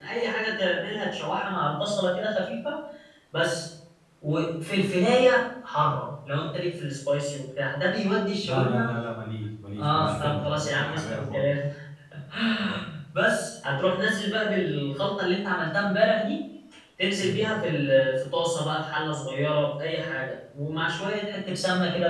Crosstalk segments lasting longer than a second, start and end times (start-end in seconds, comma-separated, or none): 9.8-11.4